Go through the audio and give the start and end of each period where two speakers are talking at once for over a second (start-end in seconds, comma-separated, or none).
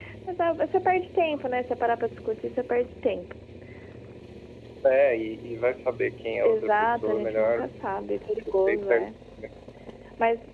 6.4-7.6